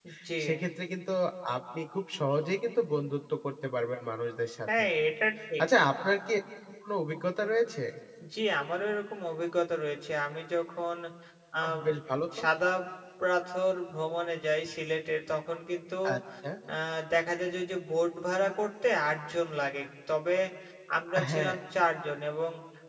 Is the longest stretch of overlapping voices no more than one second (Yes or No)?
Yes